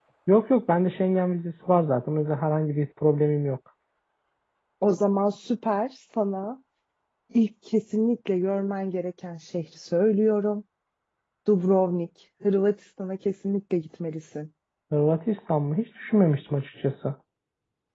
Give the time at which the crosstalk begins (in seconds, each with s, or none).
none